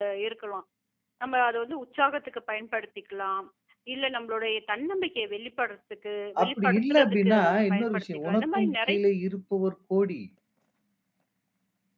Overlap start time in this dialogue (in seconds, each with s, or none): 6.4 s